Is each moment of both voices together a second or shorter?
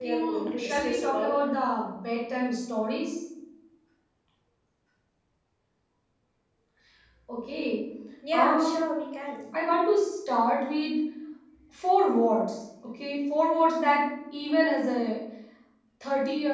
No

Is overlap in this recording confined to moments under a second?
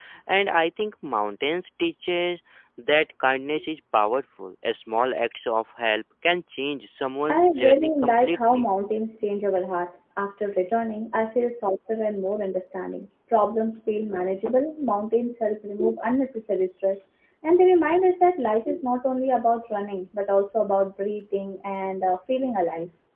No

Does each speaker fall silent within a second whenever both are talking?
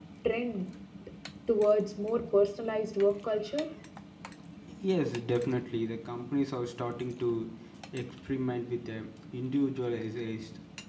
Yes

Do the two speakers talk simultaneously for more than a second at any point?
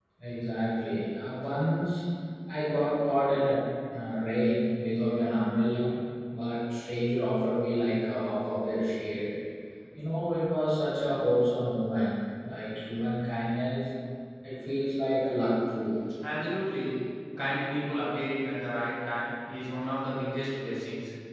No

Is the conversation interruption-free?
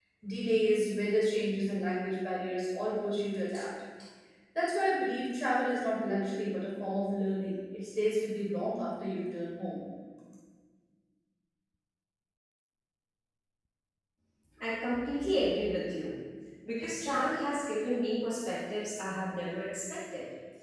Yes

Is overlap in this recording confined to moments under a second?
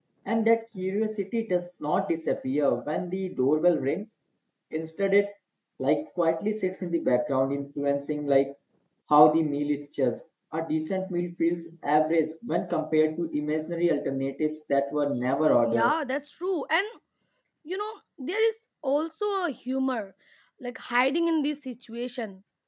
Yes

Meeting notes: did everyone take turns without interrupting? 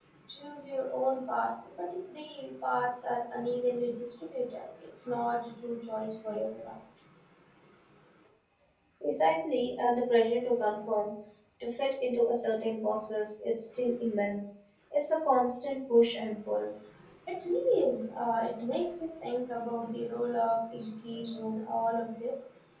Yes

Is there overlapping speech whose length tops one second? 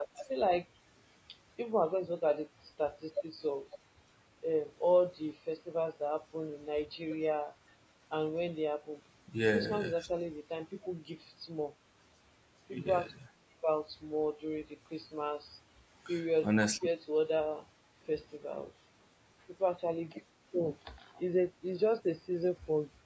No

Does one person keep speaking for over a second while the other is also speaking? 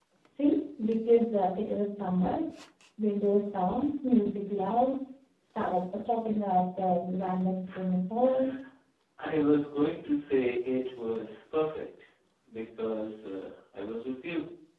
No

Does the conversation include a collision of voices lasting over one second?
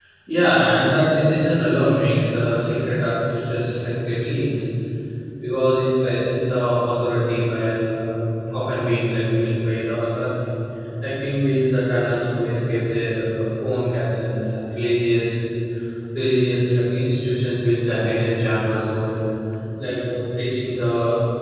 No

